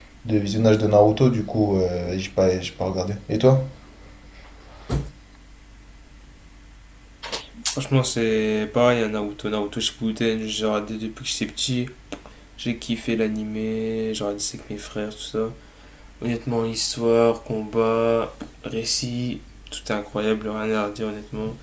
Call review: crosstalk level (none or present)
none